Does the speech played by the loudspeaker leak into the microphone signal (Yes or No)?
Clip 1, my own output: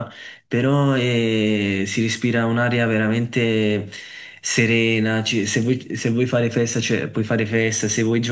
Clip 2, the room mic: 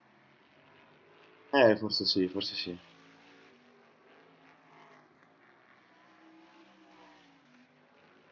No